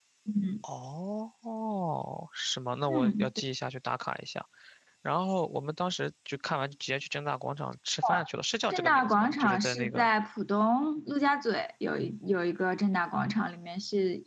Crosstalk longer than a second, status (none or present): present